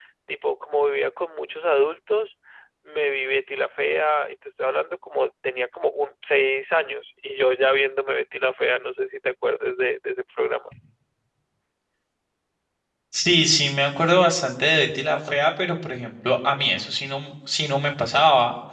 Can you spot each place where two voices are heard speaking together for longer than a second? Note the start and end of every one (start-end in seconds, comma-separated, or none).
none